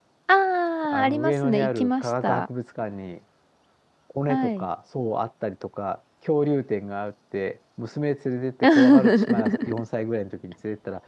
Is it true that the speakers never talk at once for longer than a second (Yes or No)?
No